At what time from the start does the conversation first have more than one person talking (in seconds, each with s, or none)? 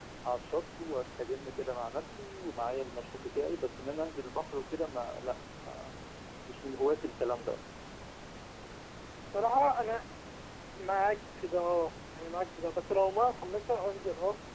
none